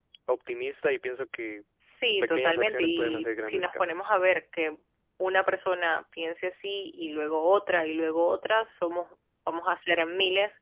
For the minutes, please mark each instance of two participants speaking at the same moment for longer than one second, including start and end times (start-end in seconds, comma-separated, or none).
2.3-4.1